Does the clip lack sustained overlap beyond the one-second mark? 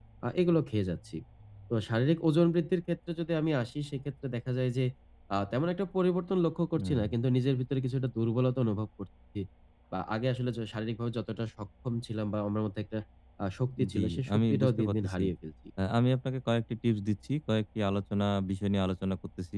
No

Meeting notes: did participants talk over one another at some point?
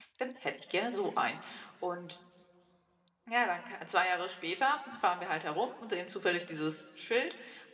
No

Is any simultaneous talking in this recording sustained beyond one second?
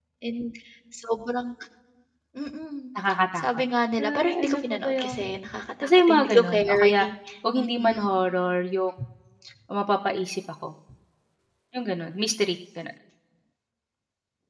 Yes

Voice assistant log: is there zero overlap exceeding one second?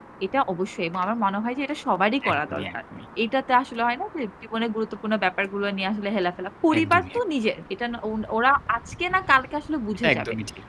Yes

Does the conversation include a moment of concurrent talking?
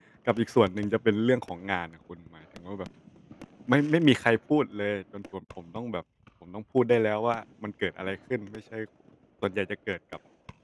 No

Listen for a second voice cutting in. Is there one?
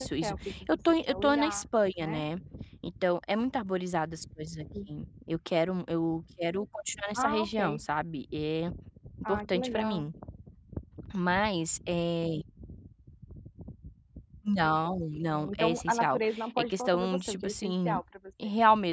Yes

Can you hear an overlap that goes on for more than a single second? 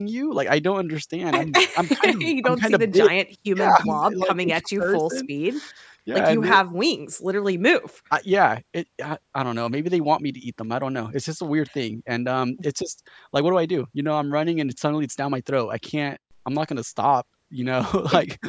Yes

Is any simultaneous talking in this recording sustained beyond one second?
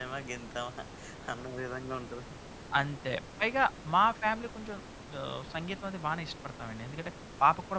No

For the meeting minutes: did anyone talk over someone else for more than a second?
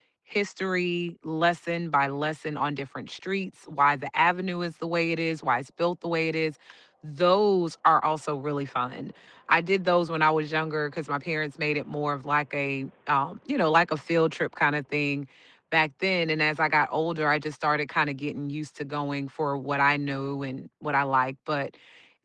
No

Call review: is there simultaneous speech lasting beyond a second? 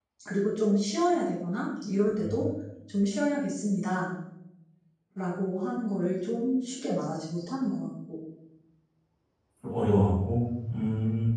No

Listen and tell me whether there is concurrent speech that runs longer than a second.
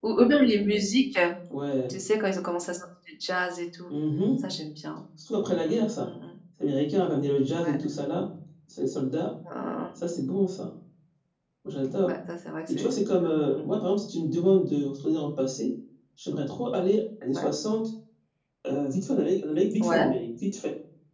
No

